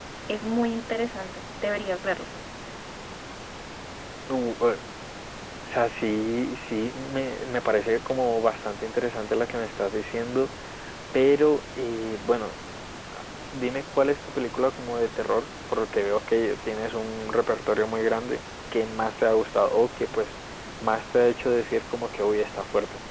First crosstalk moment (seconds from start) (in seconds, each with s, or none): none